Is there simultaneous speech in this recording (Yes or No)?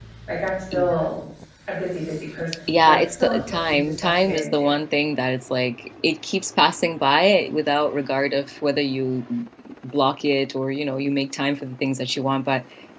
Yes